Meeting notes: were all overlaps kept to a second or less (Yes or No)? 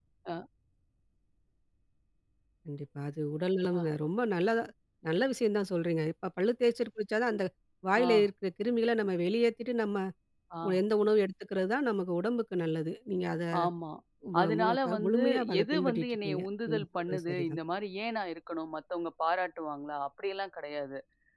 No